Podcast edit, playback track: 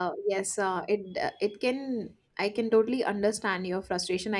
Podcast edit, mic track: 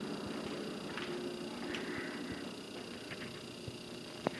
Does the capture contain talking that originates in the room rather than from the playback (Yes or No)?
No